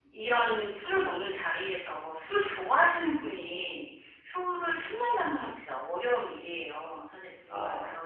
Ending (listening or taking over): listening